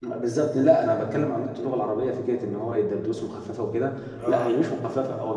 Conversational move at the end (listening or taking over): listening